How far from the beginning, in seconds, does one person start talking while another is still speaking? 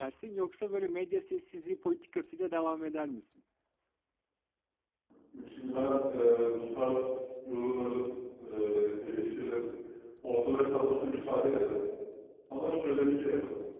none

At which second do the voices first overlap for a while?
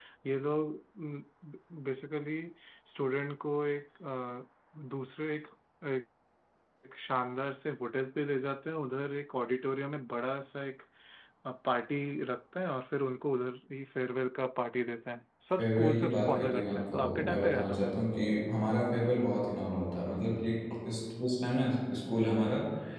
15.6 s

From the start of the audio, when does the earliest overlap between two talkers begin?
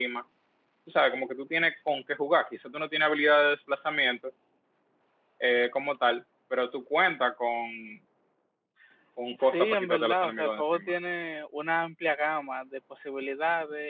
9.4 s

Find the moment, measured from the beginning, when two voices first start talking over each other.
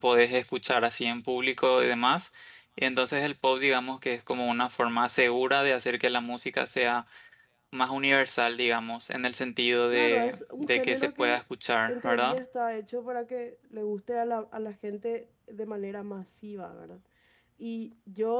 9.9 s

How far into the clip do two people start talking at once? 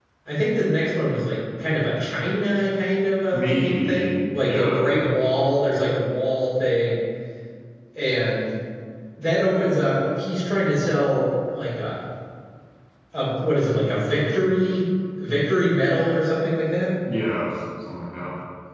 3.3 s

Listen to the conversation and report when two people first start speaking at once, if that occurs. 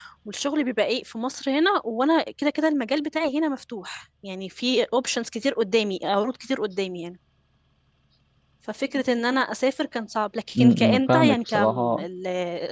10.6 s

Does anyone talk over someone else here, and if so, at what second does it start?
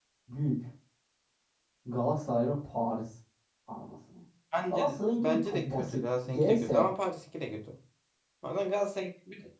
4.7 s

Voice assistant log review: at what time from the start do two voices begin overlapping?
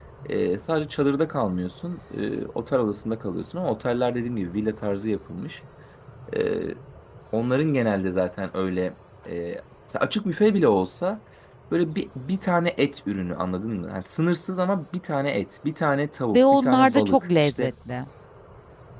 16.3 s

